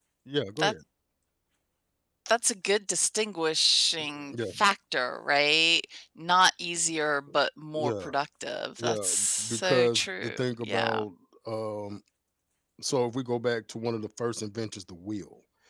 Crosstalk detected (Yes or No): Yes